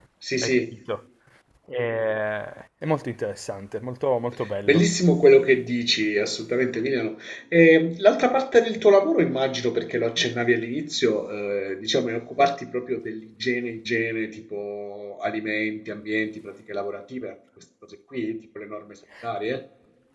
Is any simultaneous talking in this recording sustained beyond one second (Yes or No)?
No